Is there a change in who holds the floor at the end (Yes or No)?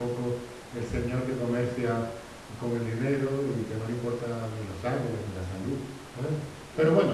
No